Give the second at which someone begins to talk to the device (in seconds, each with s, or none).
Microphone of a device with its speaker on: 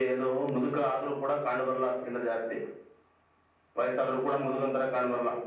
none